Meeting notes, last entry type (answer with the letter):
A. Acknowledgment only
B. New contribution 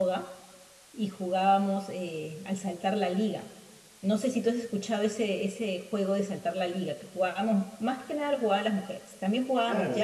B